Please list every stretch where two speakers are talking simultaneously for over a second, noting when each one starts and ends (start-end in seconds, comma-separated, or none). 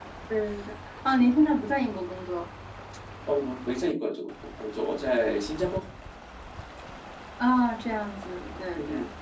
none